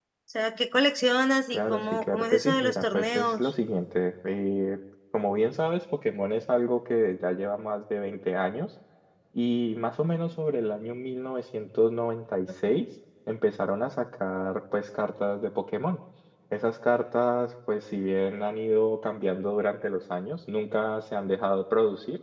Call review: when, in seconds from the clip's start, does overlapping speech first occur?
1.5 s

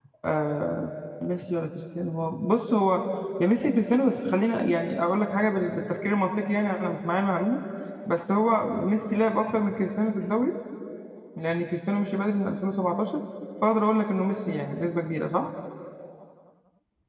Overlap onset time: none

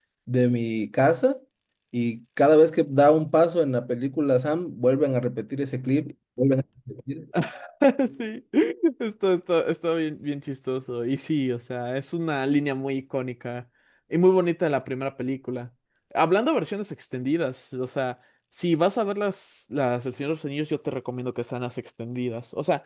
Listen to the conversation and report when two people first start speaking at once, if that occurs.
none

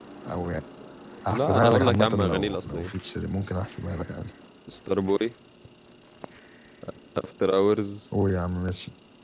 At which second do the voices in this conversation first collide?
1.3 s

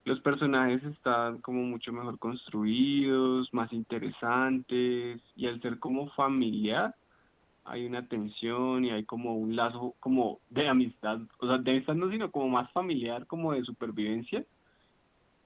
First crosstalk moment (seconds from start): none

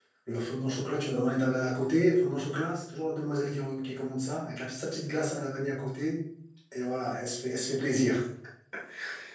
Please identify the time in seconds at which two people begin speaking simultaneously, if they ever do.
none

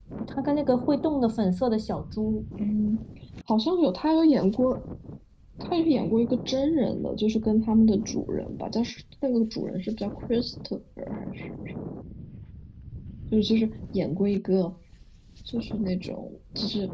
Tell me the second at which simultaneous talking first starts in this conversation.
none

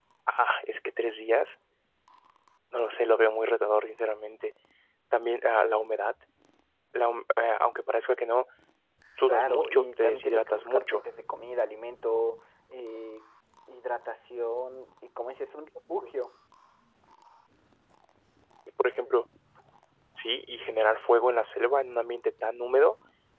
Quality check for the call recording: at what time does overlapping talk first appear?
9.3 s

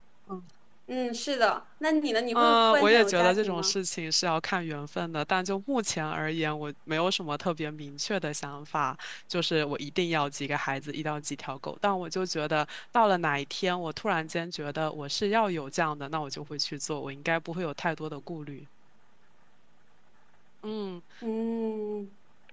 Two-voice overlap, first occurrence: 2.4 s

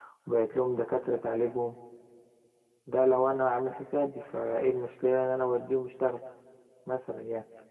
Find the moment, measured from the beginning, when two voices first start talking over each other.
none

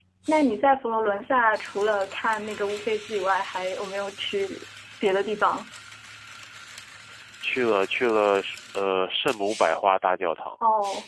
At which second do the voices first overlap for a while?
none

